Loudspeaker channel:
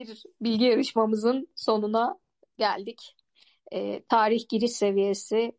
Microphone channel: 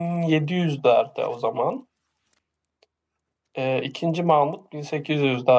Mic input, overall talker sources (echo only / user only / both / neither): user only